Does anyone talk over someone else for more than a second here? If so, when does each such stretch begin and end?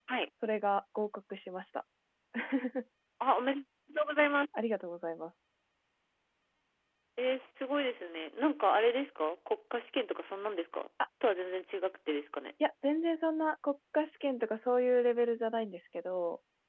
none

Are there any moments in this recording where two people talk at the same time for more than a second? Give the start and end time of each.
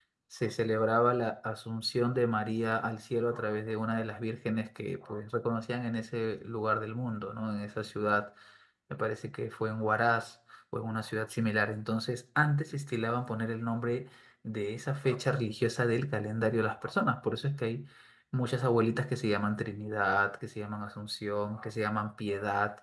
none

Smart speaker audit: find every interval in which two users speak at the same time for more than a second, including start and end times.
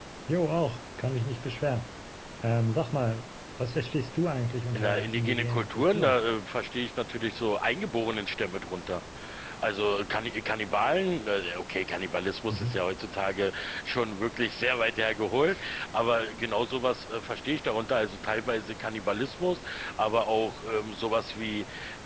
4.8-6.2

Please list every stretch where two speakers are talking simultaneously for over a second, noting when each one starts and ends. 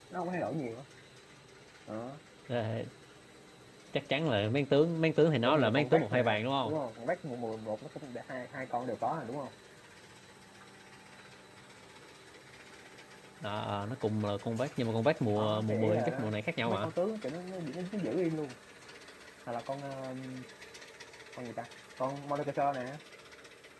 5.4-6.7, 15.3-16.9

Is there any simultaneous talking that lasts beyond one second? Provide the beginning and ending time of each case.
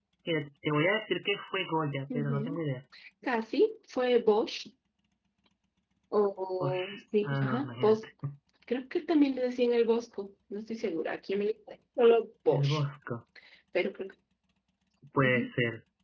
6.6-8.0

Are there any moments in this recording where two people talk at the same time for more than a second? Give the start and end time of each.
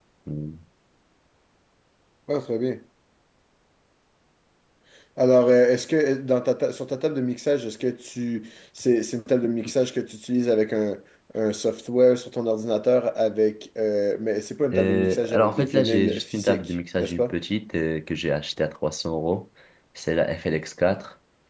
14.7-17.3

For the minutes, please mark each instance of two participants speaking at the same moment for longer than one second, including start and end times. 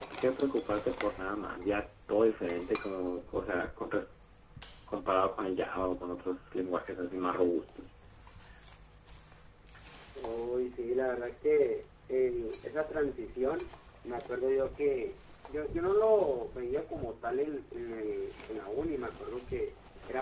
none

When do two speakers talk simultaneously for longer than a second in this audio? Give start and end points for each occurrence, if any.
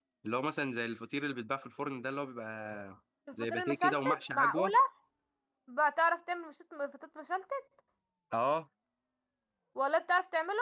3.3-4.7

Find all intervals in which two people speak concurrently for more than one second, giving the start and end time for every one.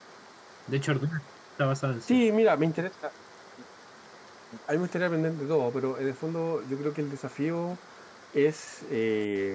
none

